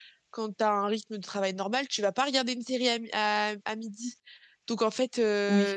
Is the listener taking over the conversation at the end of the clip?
No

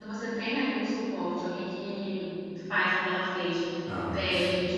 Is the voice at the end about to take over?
No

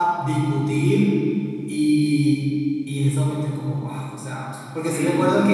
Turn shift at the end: No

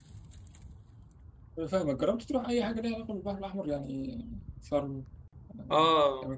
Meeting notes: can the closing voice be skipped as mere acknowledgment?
No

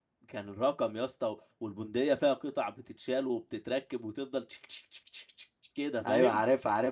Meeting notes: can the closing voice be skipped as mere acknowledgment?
No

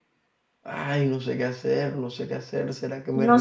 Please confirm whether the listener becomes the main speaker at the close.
Yes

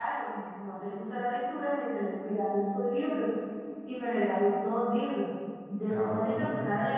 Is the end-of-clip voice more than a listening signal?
No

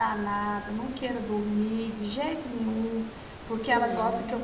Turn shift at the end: No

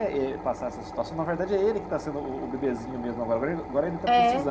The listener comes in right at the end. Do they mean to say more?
No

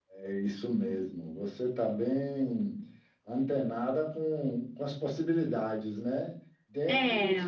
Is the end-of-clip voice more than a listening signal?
No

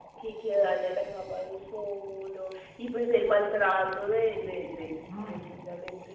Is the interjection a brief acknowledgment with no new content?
Yes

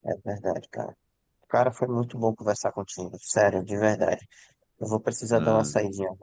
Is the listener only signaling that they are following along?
Yes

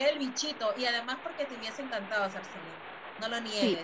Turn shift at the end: Yes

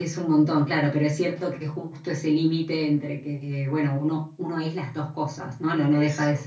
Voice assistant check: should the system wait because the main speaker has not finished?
Yes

